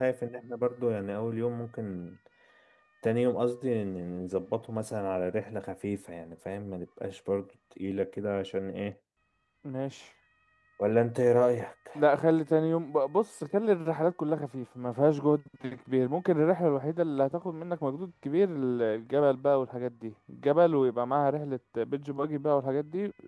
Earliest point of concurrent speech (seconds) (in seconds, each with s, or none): none